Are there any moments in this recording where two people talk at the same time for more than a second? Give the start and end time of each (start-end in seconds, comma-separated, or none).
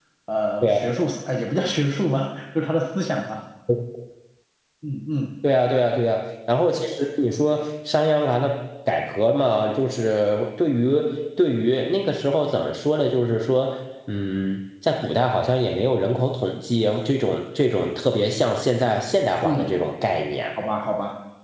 none